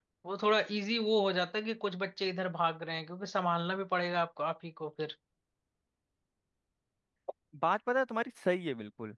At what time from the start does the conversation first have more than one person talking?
none

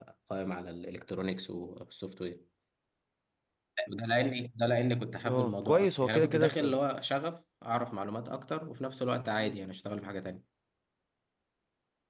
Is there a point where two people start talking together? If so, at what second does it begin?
5 s

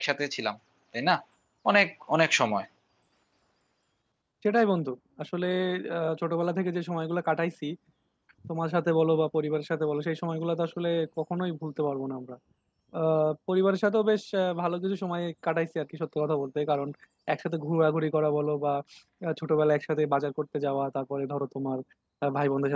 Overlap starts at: none

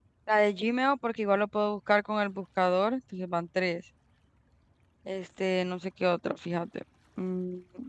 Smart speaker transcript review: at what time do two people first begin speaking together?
none

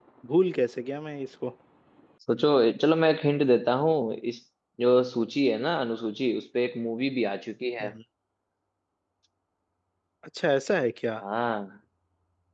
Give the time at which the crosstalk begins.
none

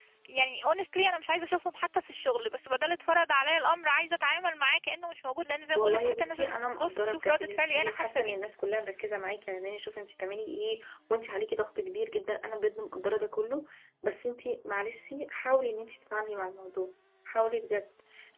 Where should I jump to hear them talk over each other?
6 s

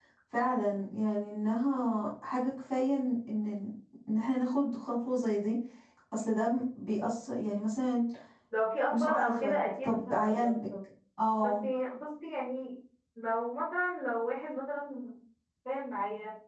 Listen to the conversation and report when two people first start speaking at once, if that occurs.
9 s

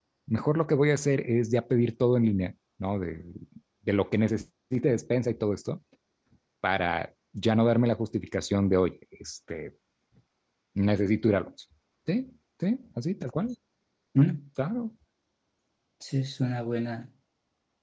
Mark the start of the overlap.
none

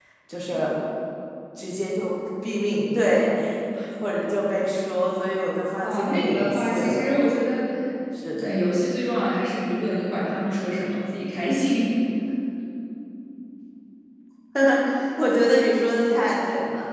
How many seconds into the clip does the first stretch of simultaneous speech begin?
6 s

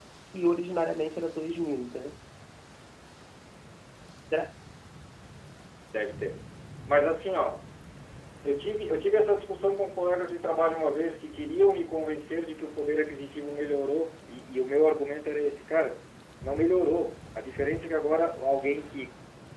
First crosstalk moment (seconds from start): none

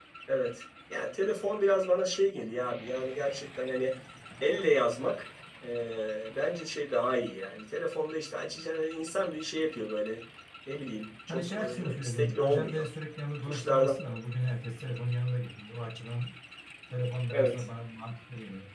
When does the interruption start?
11 s

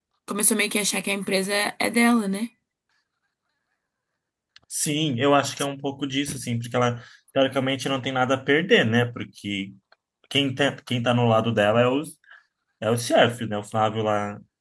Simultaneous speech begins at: none

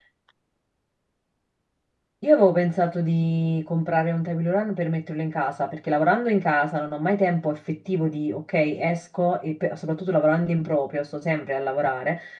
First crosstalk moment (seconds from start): none

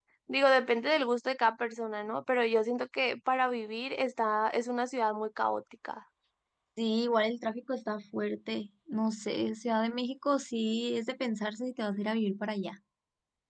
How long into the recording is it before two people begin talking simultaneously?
none

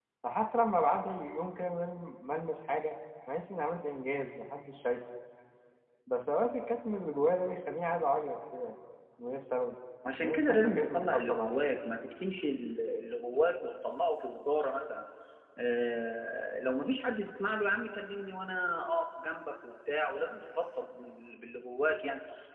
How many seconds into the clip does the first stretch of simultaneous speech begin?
10 s

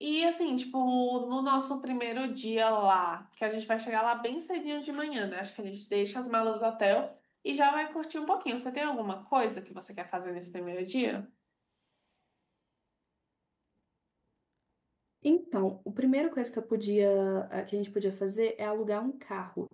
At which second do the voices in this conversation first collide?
none

